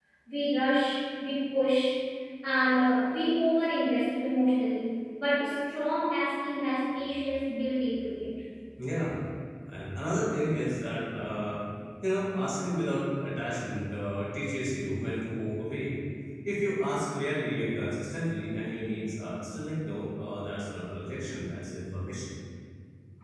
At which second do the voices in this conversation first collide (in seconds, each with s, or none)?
none